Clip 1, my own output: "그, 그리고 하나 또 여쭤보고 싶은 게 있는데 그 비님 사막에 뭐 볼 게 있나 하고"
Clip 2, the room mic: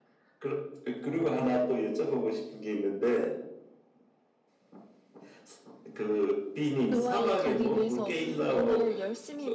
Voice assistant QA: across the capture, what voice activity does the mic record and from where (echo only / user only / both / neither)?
both